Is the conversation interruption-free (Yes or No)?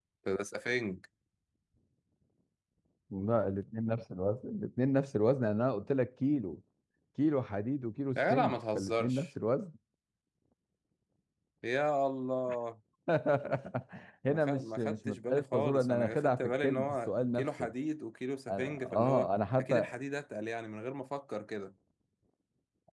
No